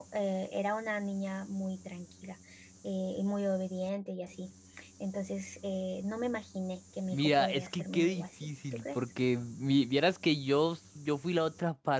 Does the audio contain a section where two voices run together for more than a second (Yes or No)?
Yes